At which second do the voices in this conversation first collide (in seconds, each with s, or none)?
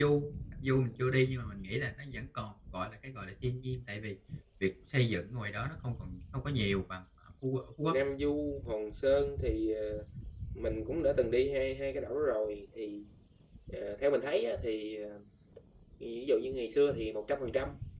none